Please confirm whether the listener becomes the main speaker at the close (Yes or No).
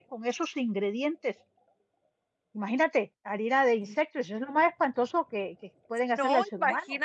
Yes